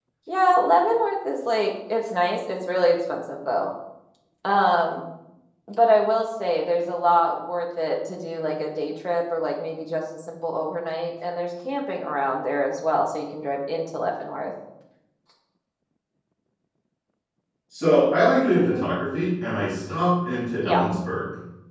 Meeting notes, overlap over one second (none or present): none